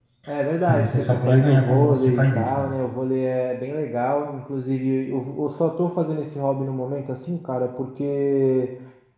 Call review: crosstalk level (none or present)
present